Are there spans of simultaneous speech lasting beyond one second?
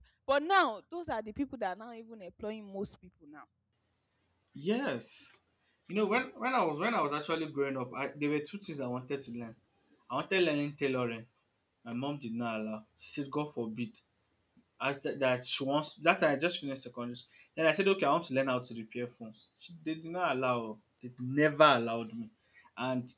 No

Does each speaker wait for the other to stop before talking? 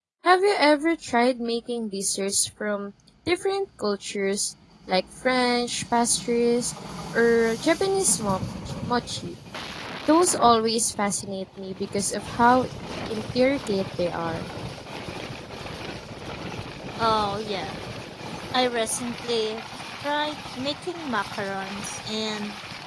Yes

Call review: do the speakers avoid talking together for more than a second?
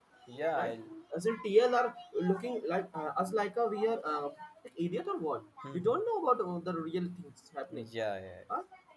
Yes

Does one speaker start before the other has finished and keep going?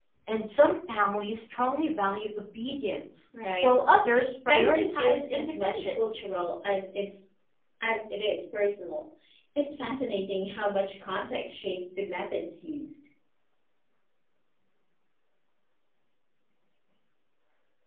Yes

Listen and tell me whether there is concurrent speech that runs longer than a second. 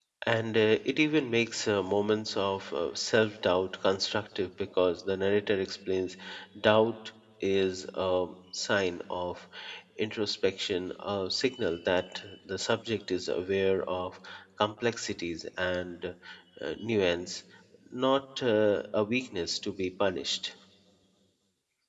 No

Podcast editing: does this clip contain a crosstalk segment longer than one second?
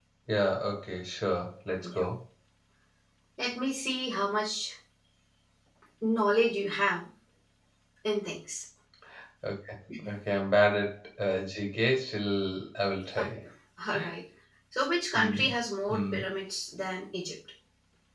No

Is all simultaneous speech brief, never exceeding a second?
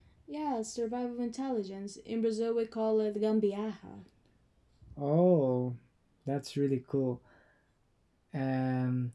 Yes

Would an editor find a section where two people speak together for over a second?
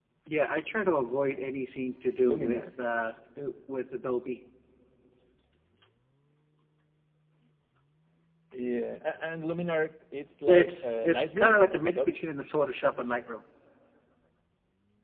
Yes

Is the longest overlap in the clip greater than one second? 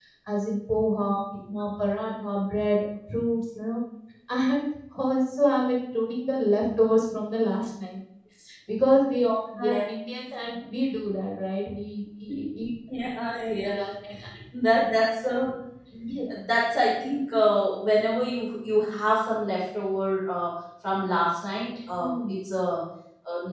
No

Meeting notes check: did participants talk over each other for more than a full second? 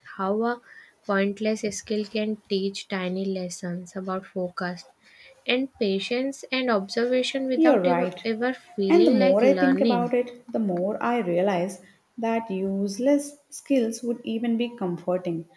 Yes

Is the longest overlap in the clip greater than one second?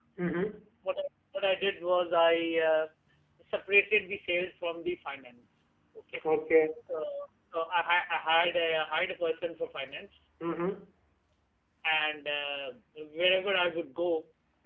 No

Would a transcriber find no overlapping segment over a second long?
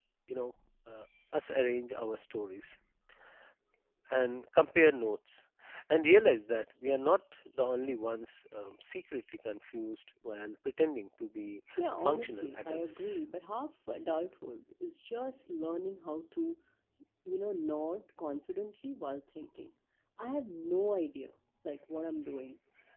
No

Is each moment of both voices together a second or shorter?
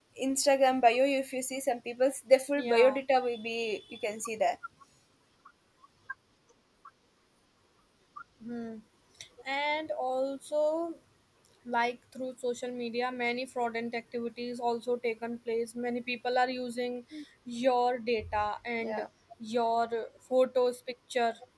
Yes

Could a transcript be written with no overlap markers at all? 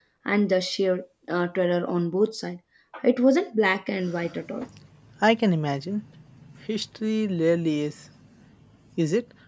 Yes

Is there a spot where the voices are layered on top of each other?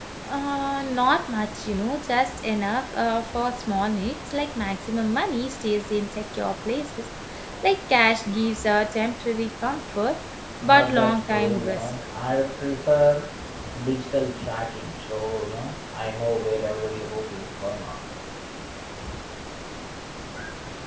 Yes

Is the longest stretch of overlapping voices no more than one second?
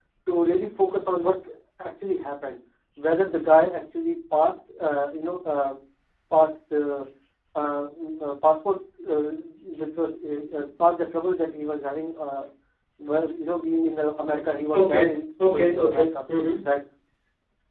No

